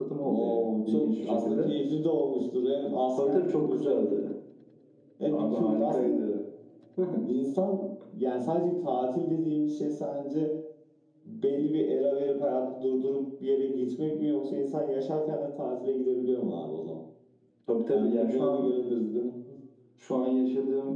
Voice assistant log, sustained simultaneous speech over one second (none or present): present